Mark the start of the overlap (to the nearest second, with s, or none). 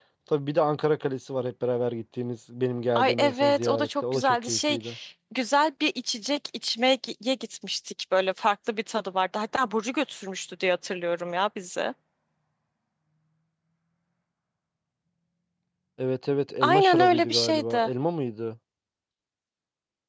3 s